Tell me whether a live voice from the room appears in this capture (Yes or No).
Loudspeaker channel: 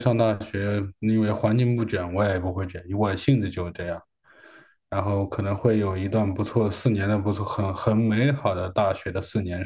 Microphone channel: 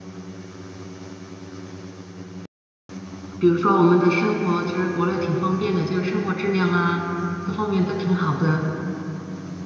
Yes